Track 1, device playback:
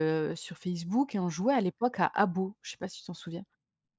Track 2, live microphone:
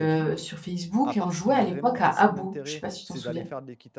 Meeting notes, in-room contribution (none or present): present